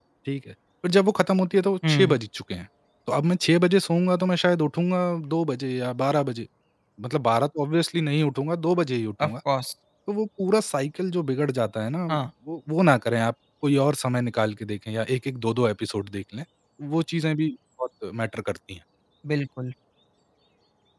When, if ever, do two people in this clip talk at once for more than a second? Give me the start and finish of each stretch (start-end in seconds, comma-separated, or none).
none